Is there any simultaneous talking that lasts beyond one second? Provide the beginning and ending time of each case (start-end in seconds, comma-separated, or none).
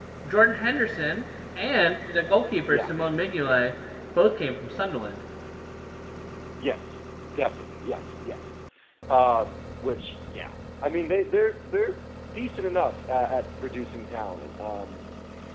none